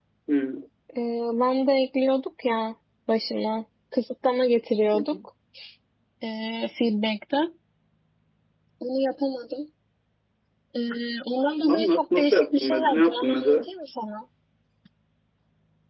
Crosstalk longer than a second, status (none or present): present